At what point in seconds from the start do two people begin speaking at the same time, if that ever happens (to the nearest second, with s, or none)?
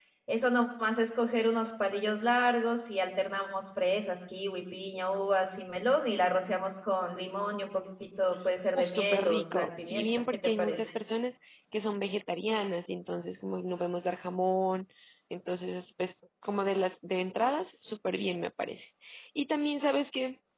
9 s